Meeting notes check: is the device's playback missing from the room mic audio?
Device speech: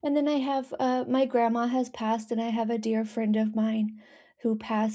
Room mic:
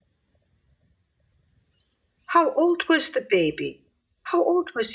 Yes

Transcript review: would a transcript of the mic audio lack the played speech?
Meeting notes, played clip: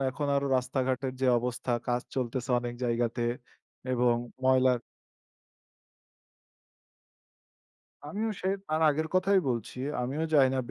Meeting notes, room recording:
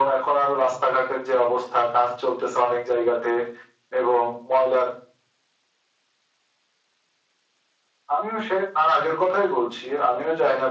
No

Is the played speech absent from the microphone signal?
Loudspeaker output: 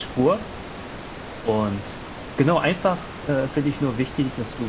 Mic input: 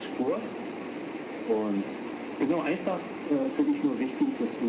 No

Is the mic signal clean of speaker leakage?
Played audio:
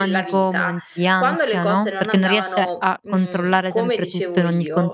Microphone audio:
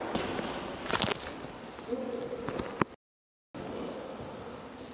Yes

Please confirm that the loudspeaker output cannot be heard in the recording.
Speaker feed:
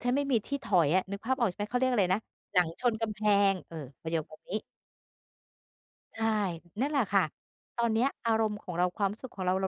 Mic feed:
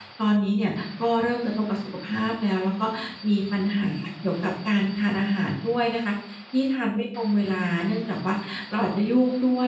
Yes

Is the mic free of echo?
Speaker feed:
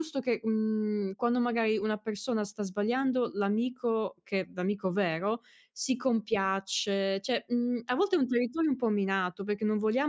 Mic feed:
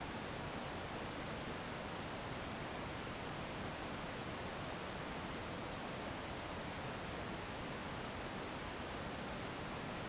Yes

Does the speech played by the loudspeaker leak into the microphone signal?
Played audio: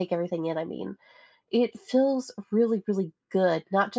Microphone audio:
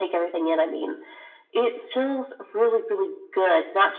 Yes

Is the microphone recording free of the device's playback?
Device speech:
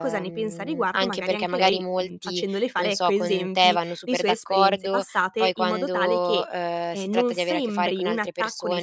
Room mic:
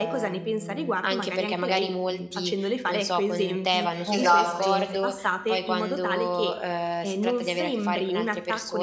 No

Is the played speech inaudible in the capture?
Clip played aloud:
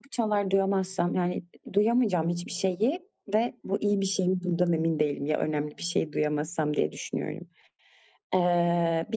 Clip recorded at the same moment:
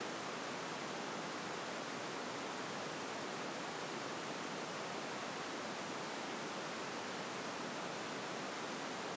Yes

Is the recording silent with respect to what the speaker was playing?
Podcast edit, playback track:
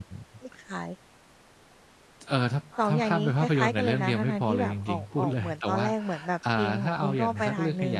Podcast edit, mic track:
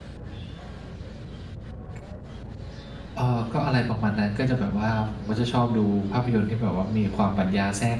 Yes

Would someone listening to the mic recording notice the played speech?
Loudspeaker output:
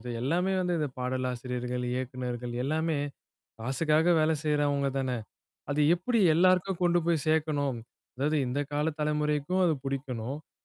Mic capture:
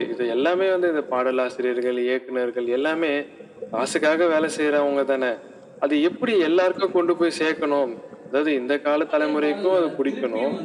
Yes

